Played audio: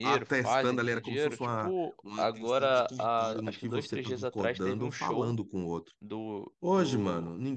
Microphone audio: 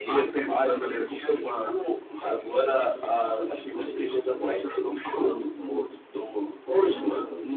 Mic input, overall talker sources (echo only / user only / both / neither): echo only